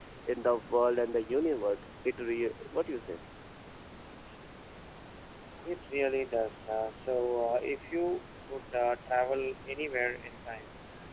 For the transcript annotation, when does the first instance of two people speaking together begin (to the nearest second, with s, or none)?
none